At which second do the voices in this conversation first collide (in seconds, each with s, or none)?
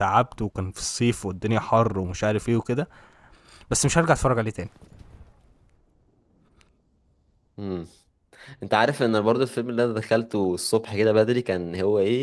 none